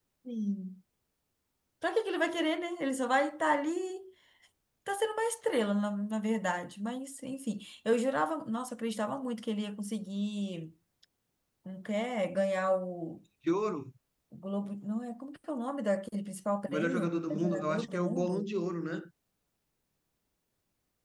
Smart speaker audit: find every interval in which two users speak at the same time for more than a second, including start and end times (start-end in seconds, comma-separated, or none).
16.7-18.5